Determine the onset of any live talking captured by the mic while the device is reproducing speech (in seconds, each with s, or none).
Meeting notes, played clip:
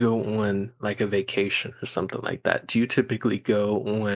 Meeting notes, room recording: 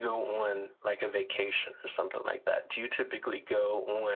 none